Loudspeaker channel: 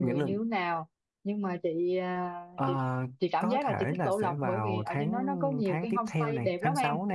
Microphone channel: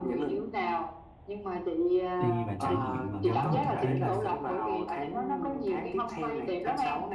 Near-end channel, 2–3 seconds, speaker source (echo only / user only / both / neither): both